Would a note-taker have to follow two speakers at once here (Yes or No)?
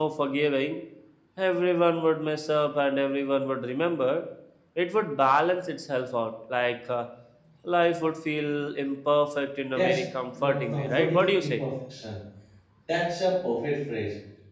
Yes